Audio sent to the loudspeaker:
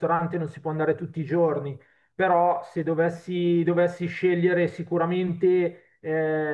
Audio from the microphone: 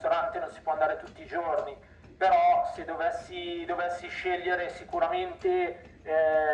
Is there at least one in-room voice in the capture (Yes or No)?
No